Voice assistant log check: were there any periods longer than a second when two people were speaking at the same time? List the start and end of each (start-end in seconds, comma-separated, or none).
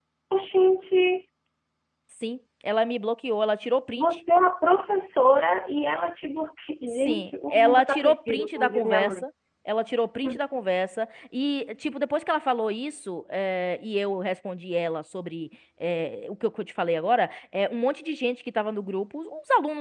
6.9-9.2